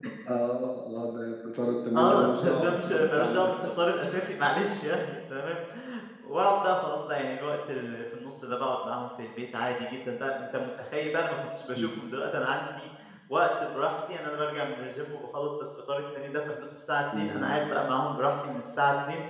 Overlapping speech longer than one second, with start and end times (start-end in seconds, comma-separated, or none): 2.0-3.5